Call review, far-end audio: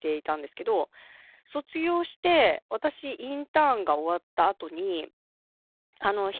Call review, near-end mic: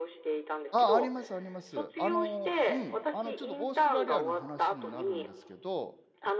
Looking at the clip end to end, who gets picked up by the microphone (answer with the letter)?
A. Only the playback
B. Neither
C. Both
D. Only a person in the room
C